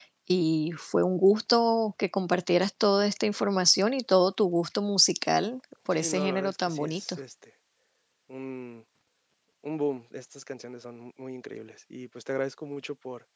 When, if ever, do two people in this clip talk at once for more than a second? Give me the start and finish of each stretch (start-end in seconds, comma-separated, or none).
5.9-7.2